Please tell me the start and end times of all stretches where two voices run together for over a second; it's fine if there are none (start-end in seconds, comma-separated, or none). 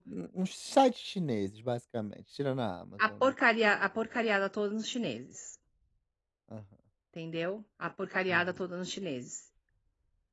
none